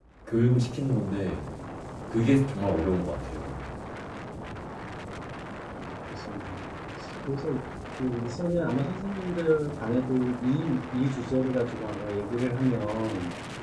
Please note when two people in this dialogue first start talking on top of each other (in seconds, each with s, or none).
none